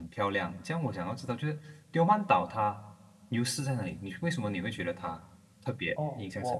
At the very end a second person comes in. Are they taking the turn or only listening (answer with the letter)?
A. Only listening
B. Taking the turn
B